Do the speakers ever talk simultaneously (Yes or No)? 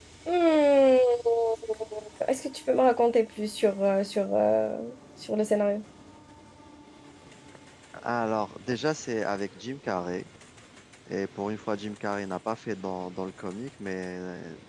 No